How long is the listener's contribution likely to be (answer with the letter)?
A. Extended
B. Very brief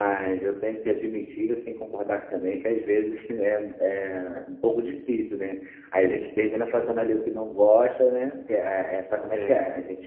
B